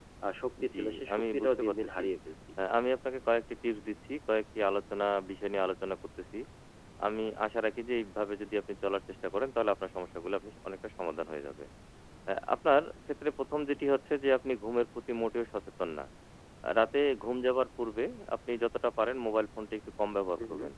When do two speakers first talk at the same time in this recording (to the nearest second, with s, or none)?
1 s